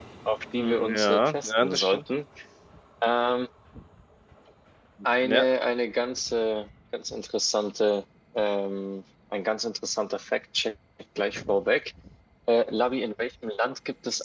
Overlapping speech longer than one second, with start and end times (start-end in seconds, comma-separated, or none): 0.6-2.0